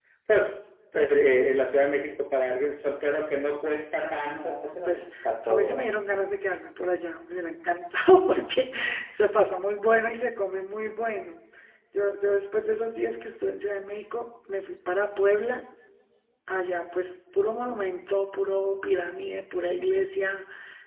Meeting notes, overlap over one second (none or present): present